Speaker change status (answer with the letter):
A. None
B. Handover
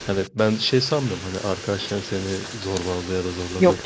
A